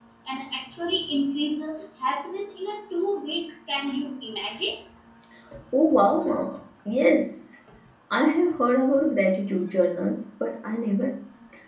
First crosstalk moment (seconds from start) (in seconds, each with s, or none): none